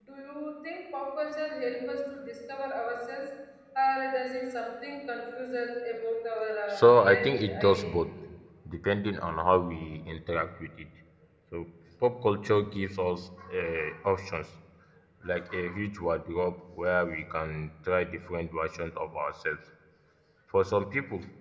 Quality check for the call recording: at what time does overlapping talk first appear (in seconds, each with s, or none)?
6.7 s